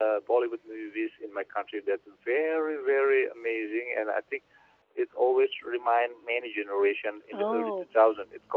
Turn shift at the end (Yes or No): No